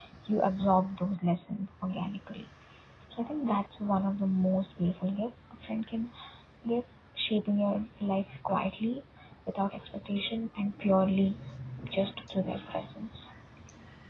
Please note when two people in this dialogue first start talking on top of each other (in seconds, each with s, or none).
none